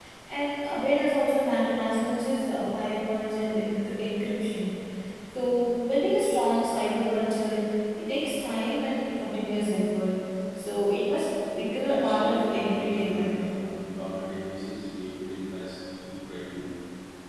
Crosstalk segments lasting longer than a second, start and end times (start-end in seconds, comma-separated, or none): 11.9-13.4